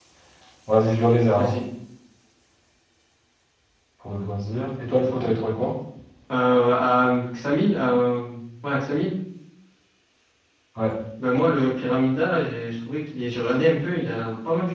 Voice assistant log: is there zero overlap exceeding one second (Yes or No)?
Yes